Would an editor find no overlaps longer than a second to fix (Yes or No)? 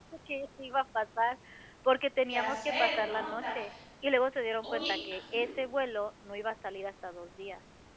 No